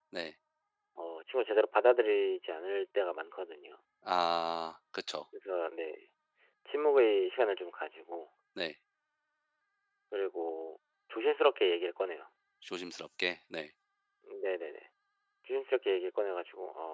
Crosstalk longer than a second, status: none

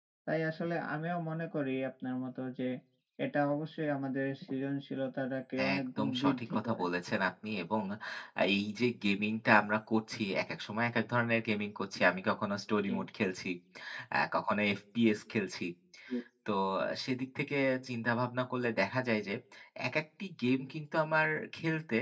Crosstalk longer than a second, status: present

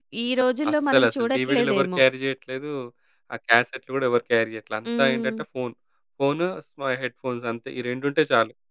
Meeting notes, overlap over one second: present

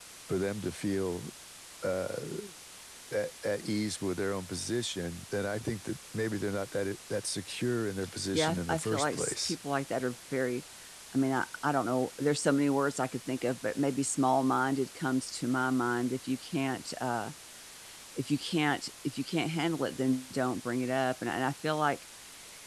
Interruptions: present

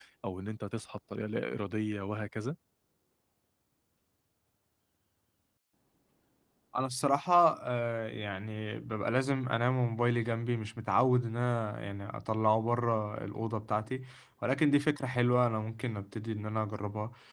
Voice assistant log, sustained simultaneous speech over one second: none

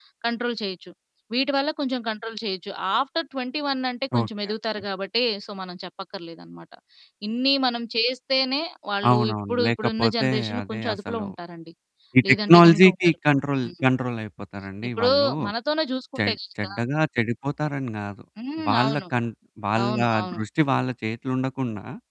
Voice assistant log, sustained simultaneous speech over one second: present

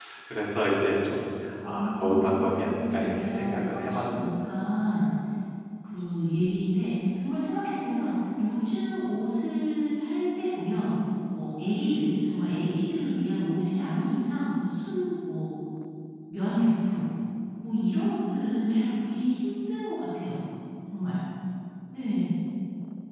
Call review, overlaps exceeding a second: present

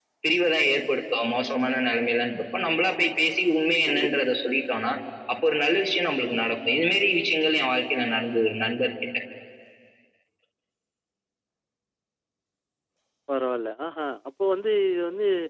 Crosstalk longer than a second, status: none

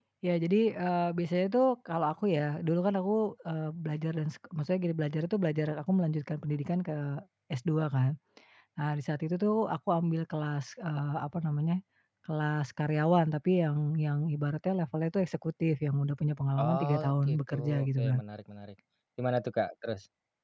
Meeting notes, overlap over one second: present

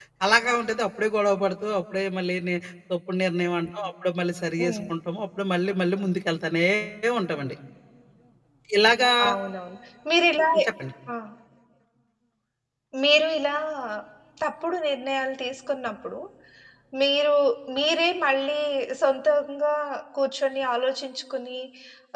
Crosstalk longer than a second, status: none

